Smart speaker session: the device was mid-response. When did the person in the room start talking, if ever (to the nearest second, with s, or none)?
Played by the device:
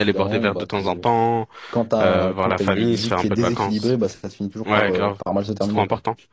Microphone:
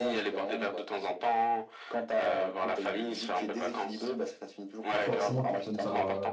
5 s